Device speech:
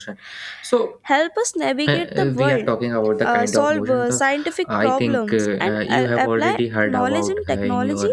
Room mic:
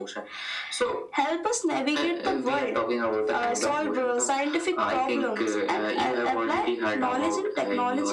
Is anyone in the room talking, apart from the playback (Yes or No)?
No